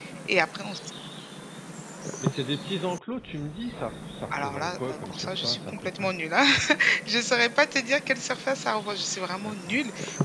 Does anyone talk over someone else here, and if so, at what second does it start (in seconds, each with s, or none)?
4.4 s